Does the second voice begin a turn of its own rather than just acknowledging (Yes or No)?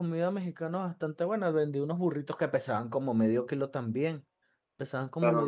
Yes